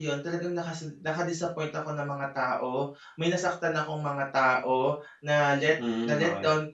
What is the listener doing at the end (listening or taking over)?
listening